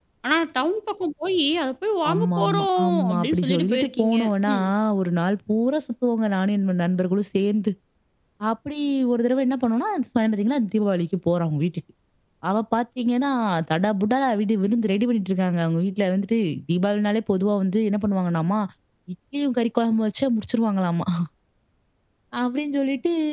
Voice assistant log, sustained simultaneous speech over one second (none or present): present